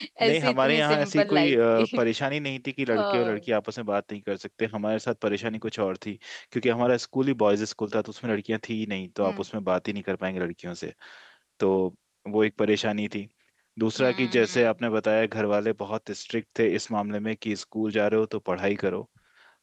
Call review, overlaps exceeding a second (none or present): present